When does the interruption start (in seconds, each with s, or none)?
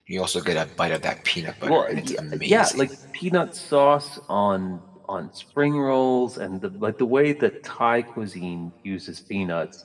1.6 s